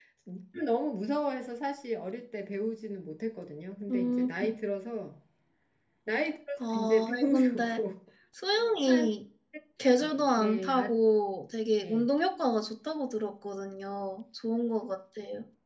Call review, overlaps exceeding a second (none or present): present